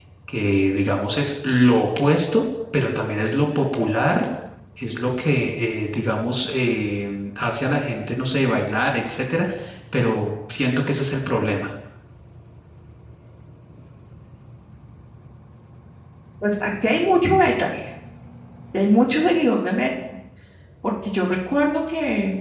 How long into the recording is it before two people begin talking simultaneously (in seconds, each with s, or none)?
none